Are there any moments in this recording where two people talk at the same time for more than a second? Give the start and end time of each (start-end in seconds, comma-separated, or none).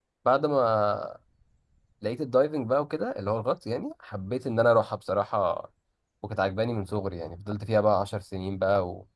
none